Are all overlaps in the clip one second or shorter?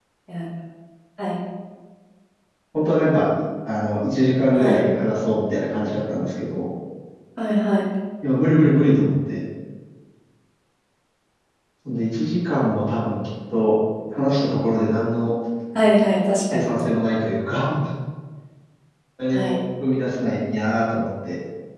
Yes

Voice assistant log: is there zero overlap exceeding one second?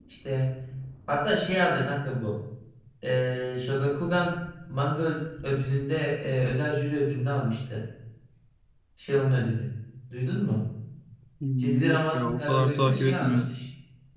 No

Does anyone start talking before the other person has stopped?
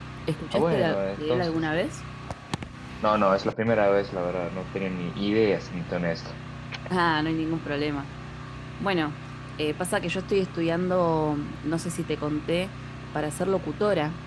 Yes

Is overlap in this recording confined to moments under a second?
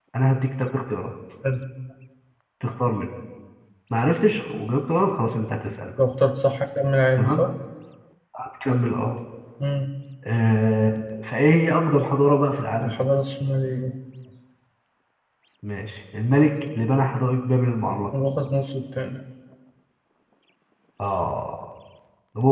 Yes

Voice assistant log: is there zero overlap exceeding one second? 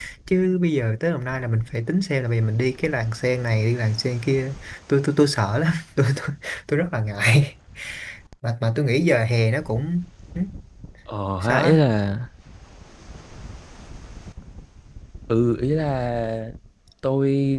Yes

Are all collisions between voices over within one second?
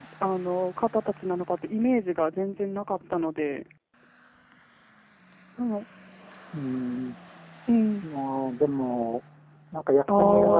Yes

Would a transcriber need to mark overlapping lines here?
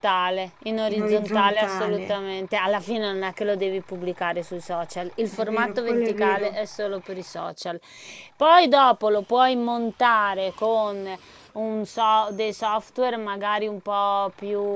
Yes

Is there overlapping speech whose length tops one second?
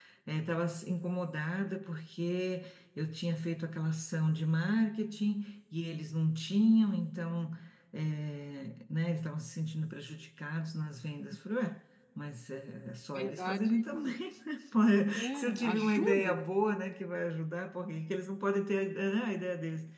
Yes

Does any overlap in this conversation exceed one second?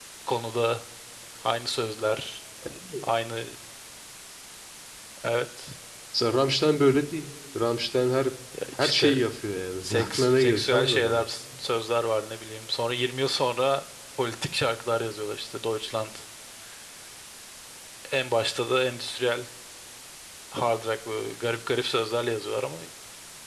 Yes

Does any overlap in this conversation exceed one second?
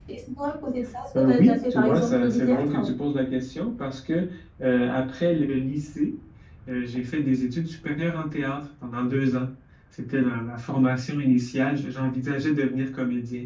Yes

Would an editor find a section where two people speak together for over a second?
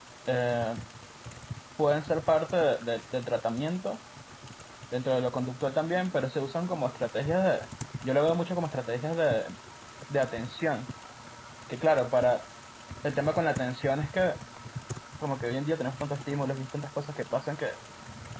No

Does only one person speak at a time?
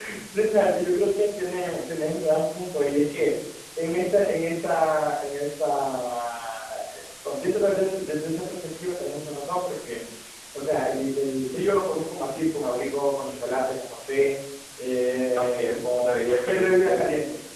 No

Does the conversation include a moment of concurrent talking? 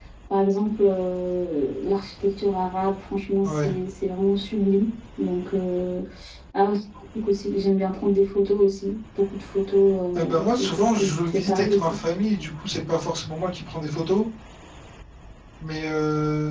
Yes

